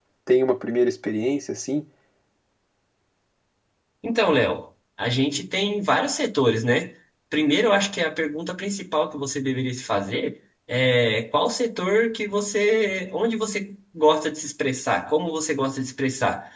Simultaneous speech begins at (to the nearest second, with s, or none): none